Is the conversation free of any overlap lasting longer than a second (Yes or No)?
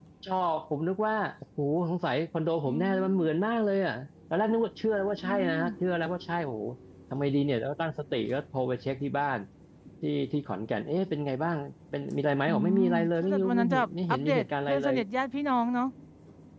No